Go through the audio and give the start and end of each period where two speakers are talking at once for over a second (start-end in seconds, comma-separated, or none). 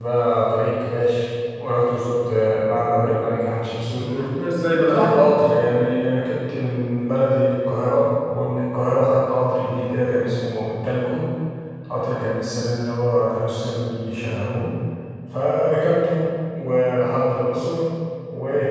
none